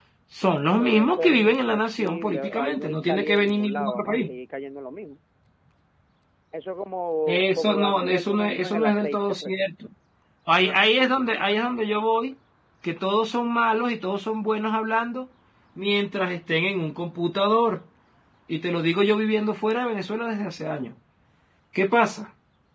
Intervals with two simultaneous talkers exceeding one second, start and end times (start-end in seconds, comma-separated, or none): 0.8-4.3, 7.3-9.6